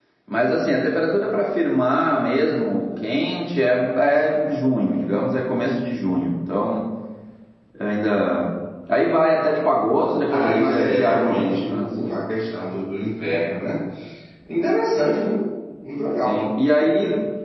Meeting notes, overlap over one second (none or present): present